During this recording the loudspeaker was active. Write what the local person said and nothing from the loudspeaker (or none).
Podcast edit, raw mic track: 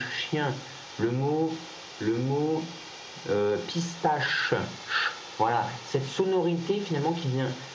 none